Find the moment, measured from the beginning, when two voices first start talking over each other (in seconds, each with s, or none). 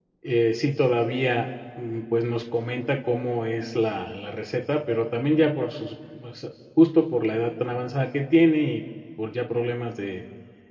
none